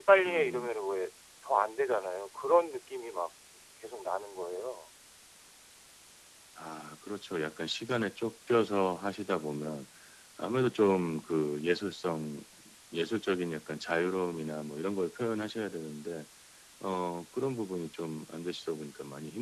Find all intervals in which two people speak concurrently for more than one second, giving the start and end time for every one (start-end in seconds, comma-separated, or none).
none